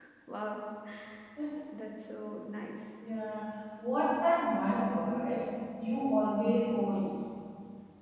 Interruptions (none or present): none